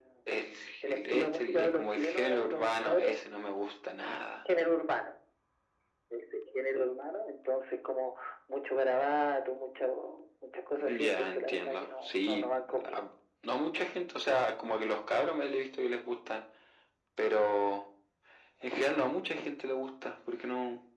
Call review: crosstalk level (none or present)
present